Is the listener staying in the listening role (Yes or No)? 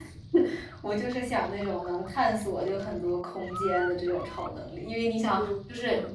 Yes